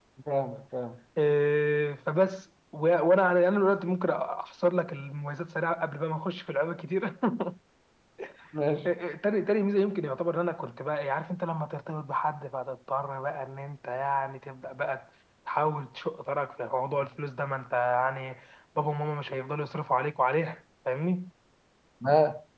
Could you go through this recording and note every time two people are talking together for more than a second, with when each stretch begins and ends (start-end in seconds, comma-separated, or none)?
none